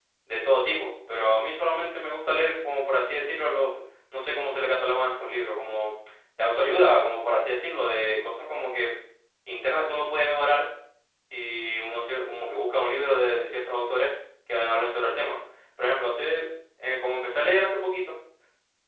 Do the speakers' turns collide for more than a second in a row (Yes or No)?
No